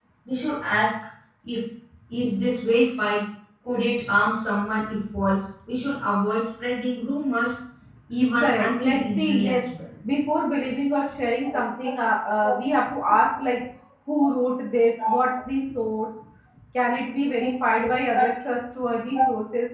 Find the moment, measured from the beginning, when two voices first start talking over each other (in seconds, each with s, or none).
8.4 s